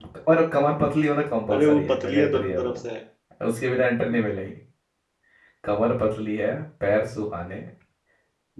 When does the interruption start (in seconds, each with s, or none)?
1.5 s